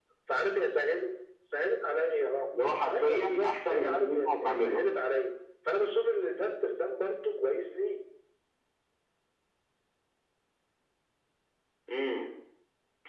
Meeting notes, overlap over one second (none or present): present